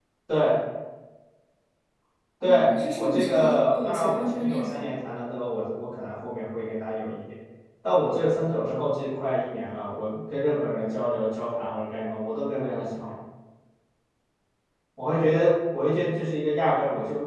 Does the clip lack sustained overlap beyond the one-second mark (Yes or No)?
No